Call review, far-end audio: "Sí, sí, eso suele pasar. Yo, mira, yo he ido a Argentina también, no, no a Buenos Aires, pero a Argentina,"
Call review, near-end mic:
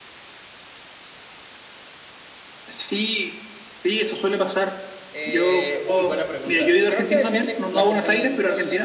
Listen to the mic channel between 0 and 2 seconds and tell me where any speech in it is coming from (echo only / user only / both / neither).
neither